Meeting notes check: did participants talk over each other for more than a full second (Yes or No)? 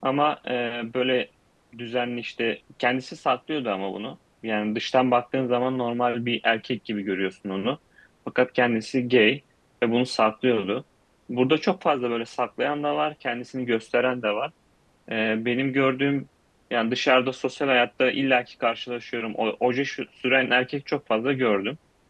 No